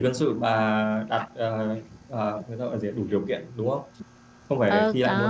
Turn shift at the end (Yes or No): Yes